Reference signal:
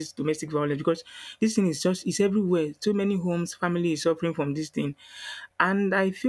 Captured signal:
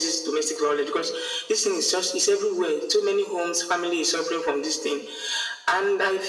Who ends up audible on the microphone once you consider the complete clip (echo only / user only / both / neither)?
echo only